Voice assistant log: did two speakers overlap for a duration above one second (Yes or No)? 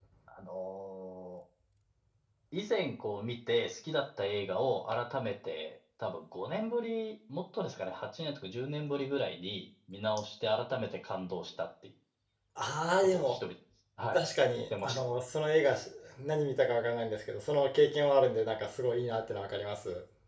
No